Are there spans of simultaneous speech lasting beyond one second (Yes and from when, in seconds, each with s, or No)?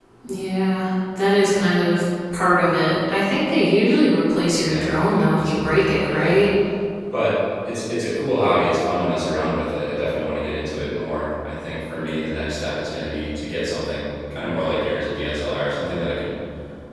Yes, from 4.5 s